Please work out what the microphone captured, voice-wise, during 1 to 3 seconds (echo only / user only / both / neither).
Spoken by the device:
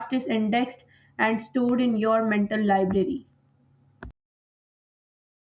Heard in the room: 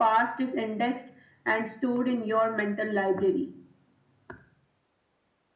echo only